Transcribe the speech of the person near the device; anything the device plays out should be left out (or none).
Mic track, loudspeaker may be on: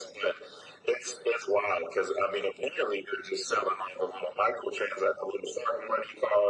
none